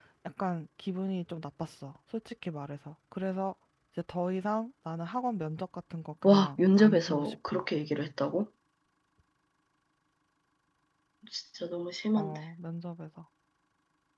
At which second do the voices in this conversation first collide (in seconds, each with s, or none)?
6.2 s